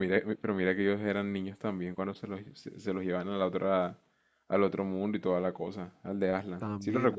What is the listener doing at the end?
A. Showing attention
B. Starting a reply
B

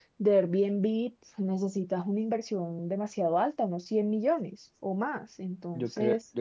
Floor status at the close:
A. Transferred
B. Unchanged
A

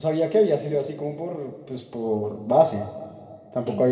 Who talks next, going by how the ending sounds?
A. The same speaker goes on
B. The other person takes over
A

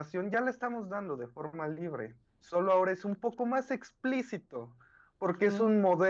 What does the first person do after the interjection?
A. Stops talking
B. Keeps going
B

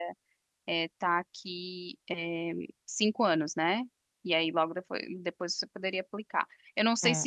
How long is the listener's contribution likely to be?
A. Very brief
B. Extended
B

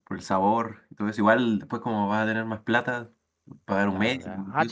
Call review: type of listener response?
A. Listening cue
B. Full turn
B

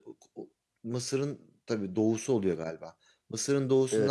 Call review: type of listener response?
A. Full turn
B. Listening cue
B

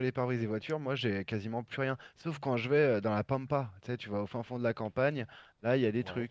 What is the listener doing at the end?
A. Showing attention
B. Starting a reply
A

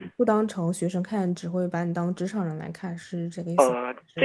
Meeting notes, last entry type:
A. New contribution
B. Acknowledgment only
A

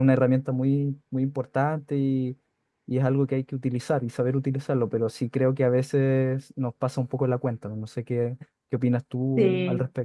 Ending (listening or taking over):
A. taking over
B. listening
A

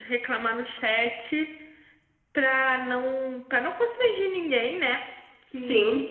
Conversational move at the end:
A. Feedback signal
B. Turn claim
A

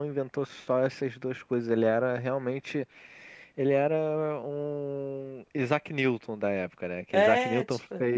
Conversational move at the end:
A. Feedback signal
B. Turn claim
A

